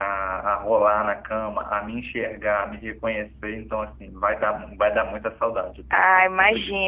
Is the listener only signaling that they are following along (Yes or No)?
No